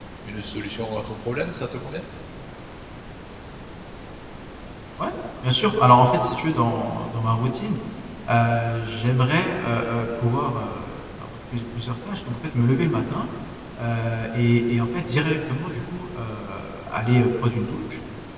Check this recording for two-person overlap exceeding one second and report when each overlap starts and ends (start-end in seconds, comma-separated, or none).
none